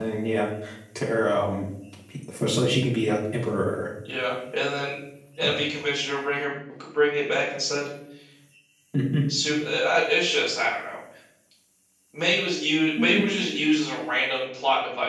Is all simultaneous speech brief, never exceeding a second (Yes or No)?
Yes